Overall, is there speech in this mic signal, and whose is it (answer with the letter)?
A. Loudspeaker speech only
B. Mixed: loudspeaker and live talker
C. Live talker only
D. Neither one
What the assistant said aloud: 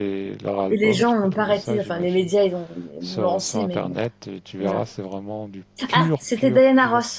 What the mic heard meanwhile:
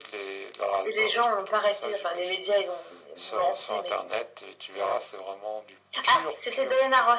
A